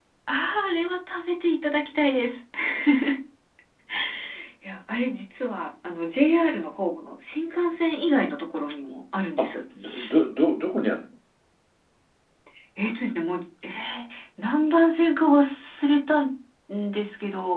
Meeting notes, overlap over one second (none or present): none